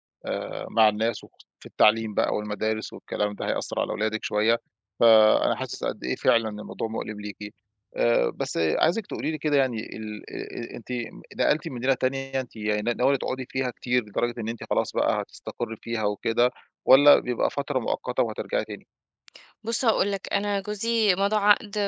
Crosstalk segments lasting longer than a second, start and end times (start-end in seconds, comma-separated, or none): none